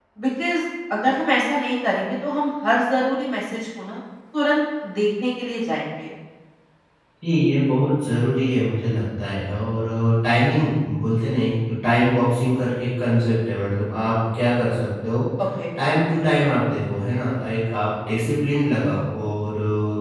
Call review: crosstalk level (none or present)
none